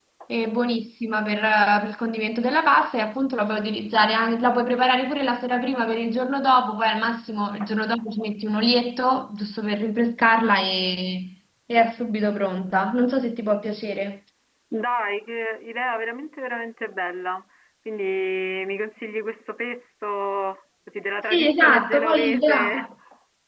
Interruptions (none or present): present